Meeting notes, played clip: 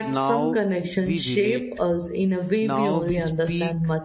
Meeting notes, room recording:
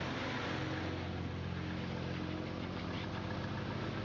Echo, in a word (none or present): none